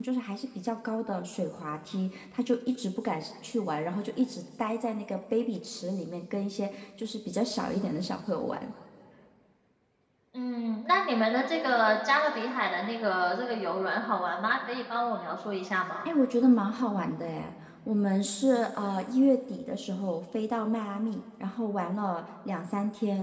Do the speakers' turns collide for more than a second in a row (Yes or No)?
No